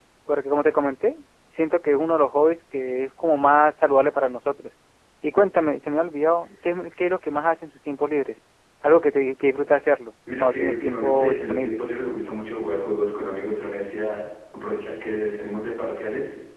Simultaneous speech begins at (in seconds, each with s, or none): 10.3 s